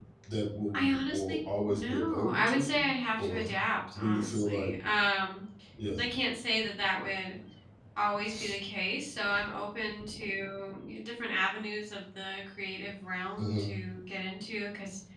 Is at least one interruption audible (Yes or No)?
Yes